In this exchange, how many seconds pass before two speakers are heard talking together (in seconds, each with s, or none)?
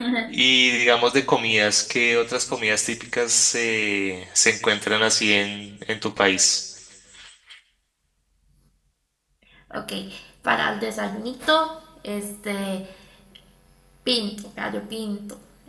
none